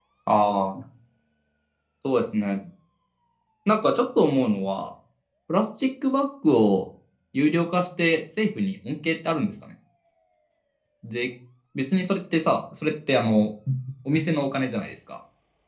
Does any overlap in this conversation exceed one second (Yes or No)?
No